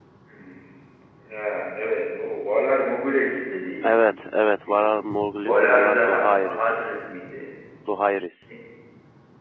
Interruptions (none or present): present